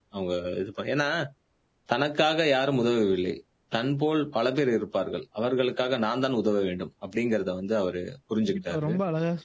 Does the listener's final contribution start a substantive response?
Yes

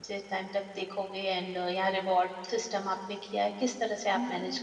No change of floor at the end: No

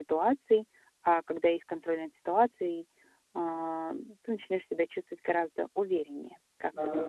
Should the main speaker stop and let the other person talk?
Yes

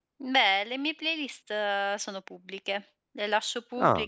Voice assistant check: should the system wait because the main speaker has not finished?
Yes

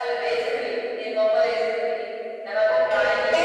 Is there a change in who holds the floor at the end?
Yes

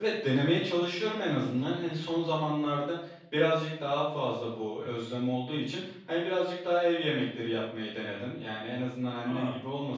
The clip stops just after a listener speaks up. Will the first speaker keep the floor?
Yes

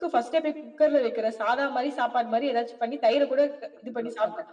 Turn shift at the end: Yes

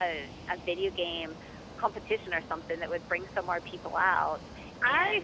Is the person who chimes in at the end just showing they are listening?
No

